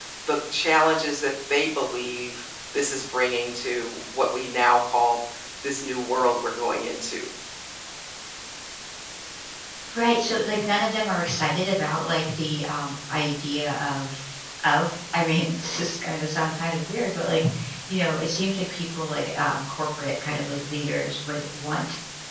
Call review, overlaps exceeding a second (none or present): none